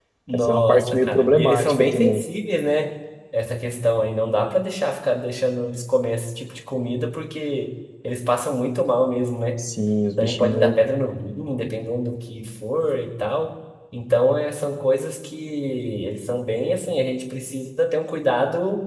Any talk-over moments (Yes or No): Yes